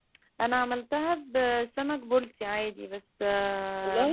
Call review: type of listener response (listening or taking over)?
listening